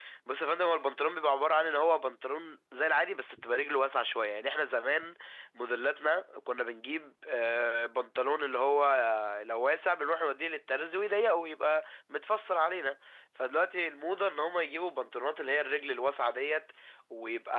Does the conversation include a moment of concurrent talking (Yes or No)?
No